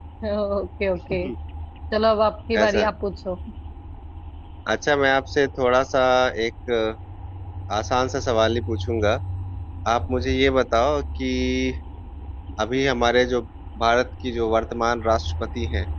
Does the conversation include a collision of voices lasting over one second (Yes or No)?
No